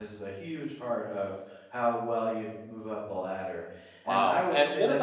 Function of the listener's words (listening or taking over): taking over